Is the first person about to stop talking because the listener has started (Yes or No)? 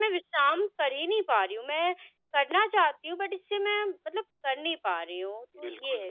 Yes